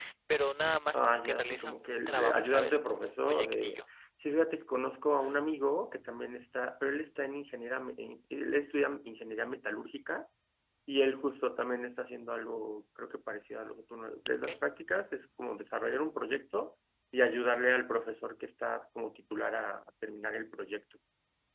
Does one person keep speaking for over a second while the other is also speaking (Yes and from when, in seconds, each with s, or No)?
Yes, from 0.9 s